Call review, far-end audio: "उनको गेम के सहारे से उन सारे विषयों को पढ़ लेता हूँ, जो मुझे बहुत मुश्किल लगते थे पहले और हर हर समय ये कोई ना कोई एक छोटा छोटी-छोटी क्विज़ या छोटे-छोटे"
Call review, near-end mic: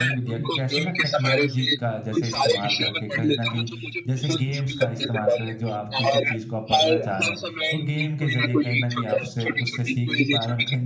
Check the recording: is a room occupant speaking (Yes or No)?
Yes